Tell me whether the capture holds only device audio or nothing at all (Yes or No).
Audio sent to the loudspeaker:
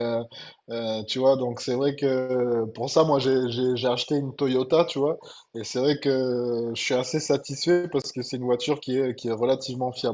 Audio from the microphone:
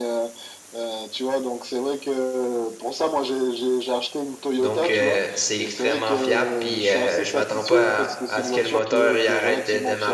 No